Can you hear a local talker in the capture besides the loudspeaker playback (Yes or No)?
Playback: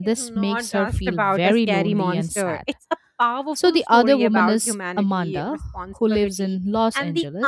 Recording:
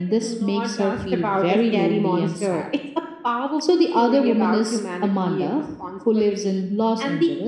No